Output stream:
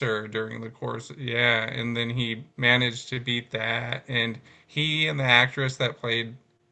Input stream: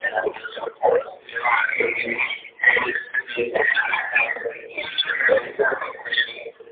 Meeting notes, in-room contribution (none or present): none